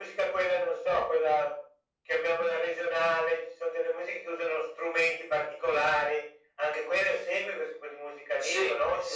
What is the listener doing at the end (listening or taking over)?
taking over